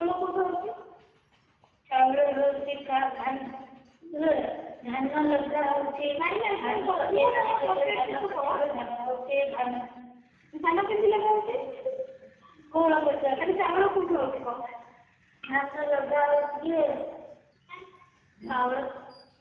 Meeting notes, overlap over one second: present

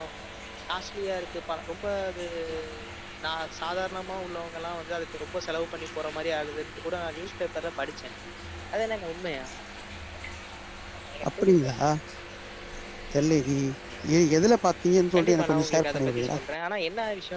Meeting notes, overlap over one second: present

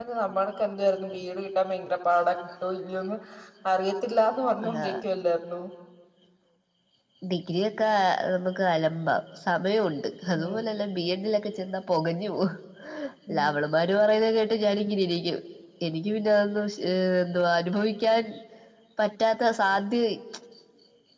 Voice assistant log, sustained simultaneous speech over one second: none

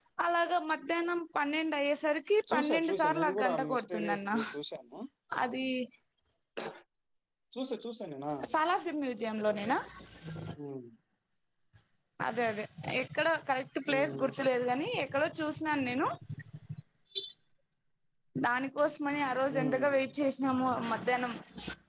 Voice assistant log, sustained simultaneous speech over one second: present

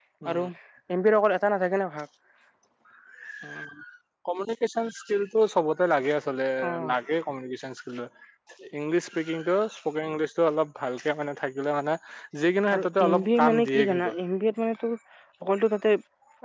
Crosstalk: present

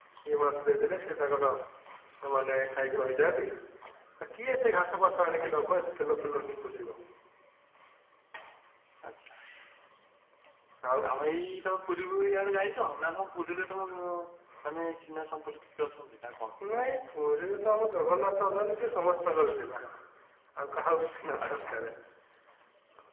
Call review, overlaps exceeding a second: none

